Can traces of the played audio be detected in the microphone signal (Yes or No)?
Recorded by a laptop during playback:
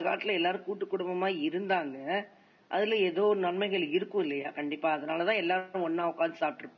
No